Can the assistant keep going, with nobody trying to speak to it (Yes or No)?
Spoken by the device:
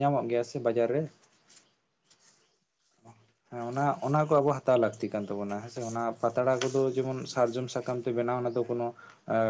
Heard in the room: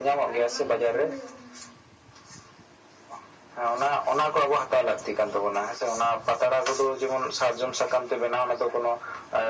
No